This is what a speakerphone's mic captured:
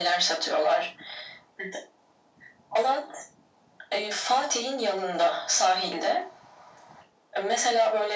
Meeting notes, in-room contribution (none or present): none